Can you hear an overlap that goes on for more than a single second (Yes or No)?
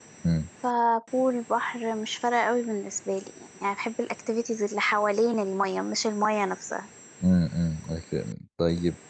No